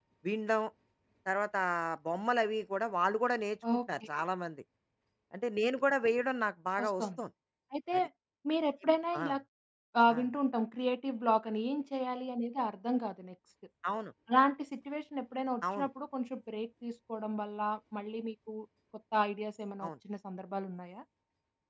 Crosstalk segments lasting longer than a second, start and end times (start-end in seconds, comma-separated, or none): none